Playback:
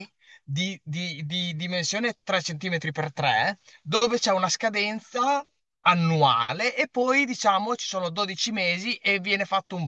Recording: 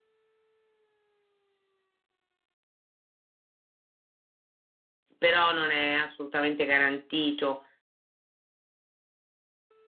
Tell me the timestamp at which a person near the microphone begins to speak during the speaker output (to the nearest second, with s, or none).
5 s